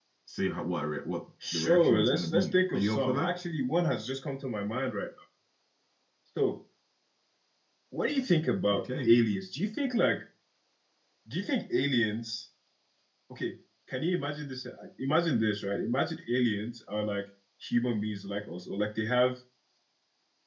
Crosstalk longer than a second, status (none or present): present